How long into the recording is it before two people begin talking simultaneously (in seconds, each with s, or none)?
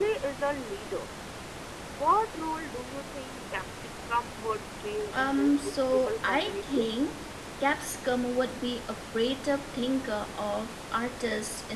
5.1 s